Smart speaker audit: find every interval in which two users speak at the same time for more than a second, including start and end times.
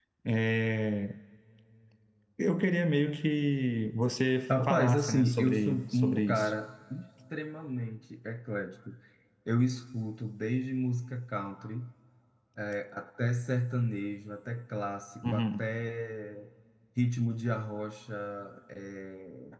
4.5-6.5

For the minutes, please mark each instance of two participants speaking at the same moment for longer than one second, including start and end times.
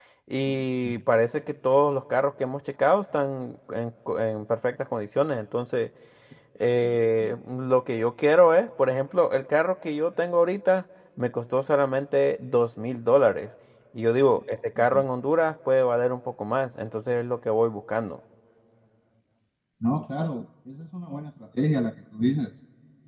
none

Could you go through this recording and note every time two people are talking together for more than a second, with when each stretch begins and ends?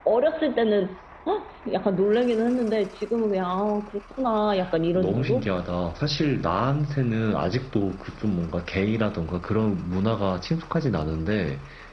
none

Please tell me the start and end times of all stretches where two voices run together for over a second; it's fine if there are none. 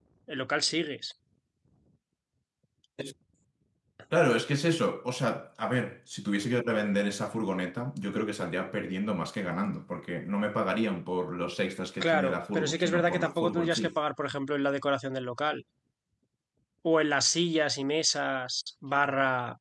12.0-13.9

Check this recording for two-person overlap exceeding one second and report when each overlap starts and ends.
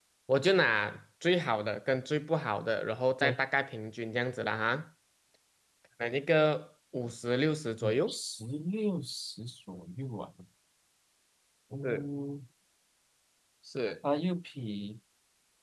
none

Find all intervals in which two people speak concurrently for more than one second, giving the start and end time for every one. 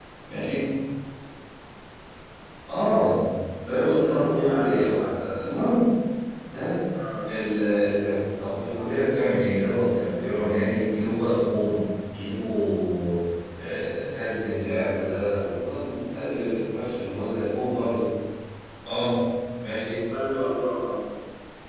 3.7-5.0

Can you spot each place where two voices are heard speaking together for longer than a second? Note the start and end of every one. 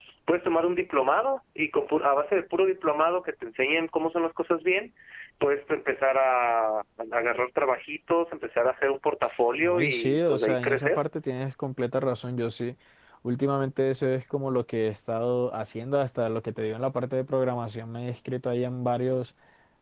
9.6-11.0

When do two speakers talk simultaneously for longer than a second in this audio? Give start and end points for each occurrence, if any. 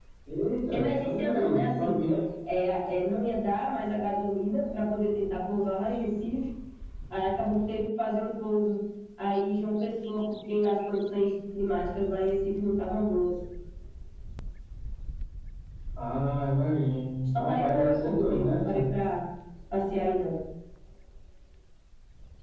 0.7-1.9, 17.3-18.6

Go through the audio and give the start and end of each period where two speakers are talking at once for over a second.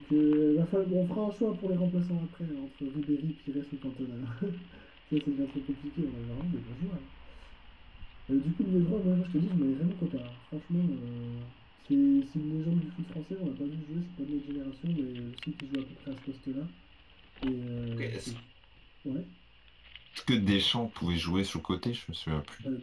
none

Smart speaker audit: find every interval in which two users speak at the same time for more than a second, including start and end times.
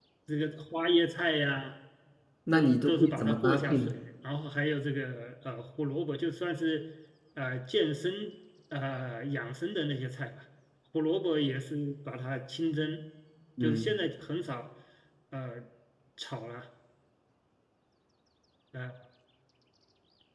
2.5-3.9

